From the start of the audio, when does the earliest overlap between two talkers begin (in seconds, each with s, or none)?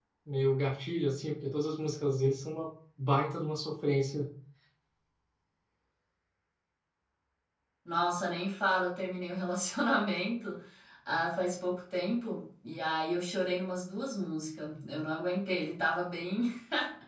none